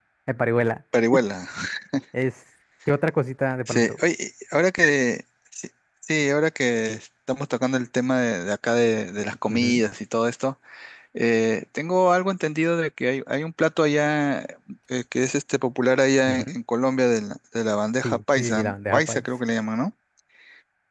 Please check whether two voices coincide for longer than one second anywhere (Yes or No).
Yes